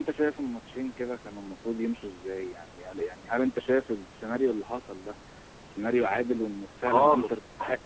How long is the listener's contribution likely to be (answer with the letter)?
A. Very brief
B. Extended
B